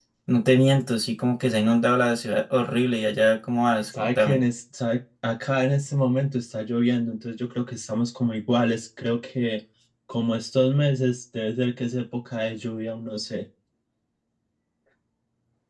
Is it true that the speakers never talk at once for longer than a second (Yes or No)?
Yes